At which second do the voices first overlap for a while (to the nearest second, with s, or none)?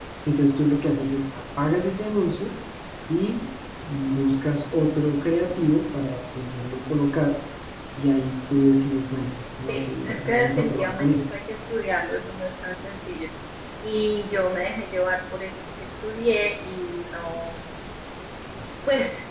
10 s